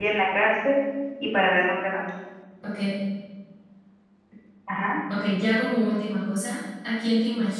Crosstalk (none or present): none